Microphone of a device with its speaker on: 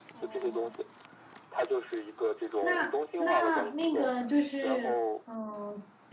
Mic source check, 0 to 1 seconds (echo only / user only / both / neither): both